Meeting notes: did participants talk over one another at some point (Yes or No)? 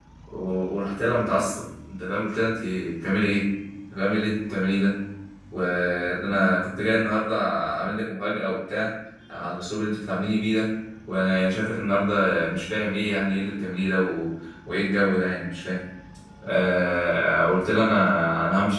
No